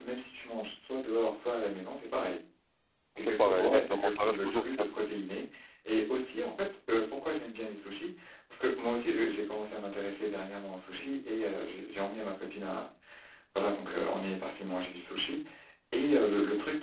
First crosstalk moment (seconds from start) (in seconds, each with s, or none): 3.2 s